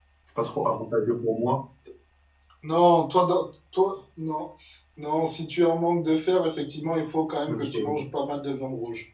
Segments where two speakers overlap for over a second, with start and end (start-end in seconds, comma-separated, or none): none